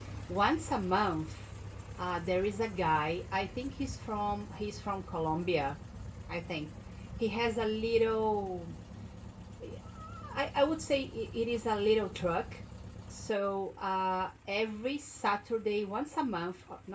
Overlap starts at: none

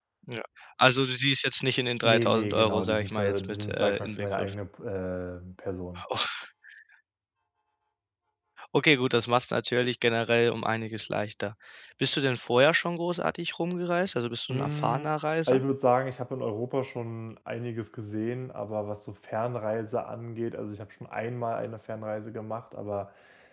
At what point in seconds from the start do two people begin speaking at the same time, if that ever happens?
2.0 s

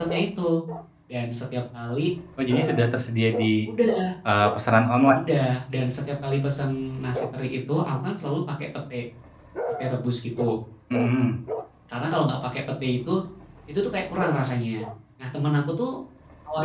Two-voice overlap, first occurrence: none

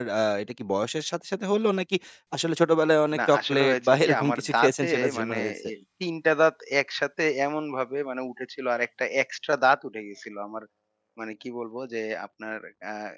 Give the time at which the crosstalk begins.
3.2 s

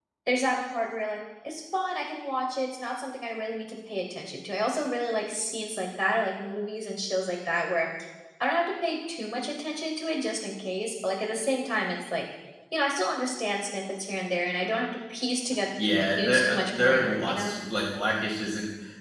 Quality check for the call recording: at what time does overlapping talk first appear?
15.7 s

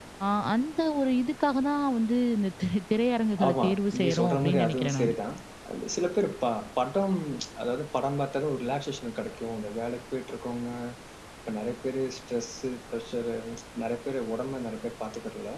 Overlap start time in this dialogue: 3.4 s

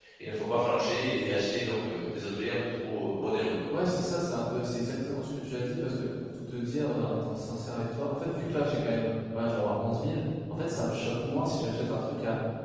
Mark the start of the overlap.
none

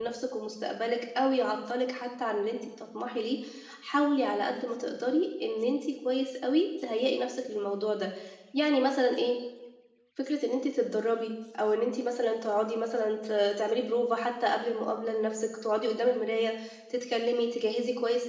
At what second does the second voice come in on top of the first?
none

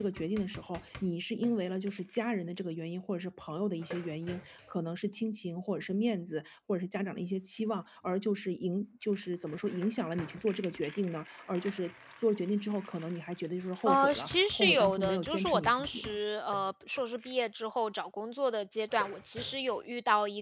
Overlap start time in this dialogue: 13.8 s

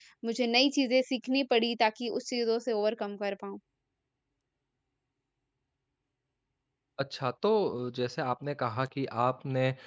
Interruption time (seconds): none

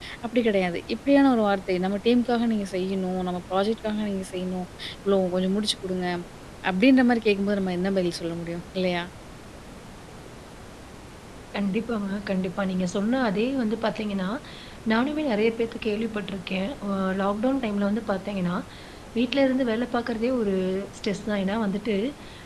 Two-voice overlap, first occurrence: none

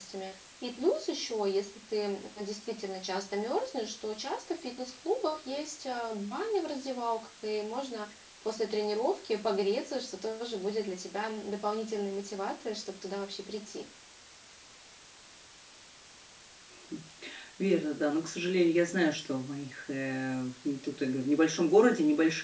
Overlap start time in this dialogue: none

